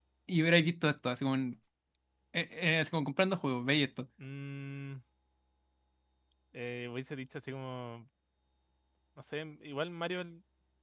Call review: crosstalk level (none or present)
none